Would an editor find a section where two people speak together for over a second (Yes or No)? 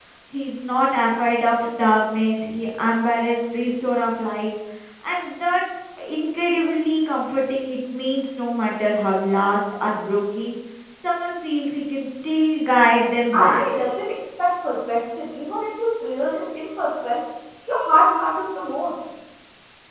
No